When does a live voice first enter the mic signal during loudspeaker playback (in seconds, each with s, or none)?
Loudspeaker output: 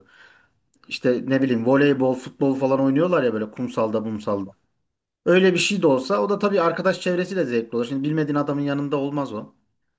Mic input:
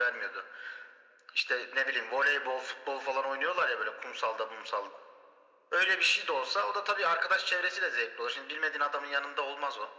none